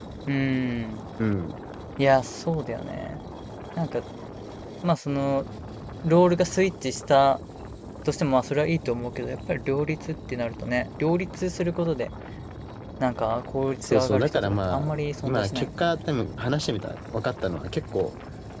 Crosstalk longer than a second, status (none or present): present